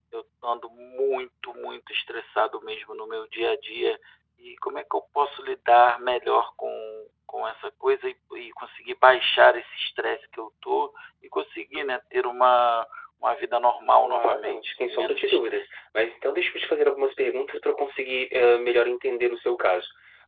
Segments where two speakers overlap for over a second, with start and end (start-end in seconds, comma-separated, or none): 14.0-15.7